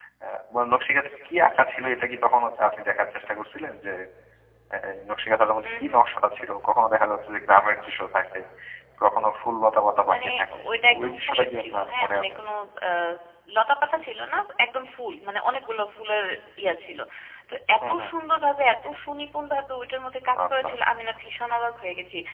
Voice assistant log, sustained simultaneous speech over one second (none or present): present